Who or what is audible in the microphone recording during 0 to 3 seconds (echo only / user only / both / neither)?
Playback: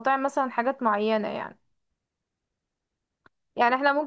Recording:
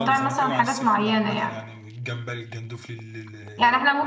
both